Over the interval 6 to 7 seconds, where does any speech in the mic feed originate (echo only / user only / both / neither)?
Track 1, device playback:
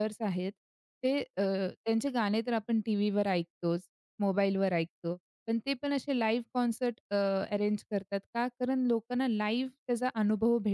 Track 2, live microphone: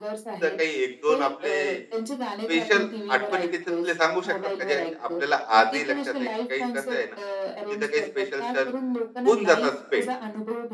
both